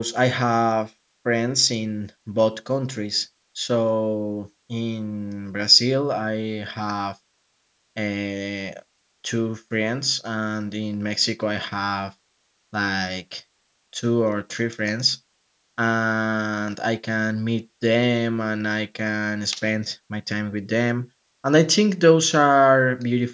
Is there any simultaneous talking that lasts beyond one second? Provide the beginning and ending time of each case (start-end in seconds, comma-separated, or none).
none